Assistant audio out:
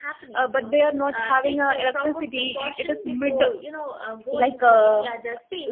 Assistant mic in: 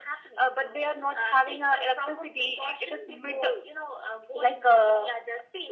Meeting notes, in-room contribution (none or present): none